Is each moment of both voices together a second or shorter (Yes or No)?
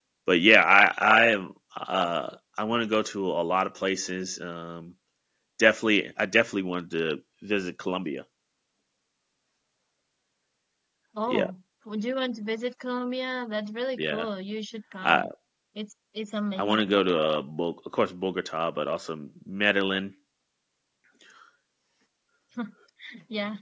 Yes